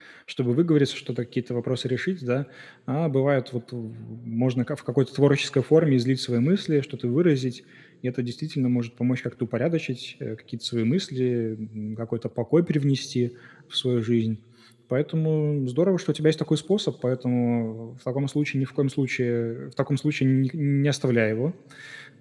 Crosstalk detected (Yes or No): No